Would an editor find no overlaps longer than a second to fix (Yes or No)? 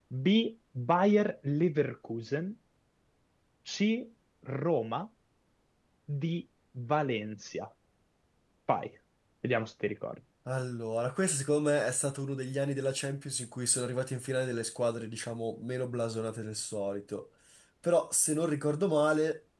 Yes